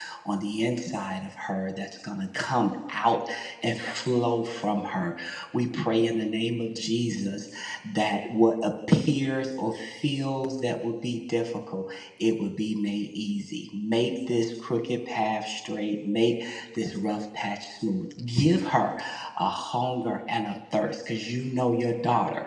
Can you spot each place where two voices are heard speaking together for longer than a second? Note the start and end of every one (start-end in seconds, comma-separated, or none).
none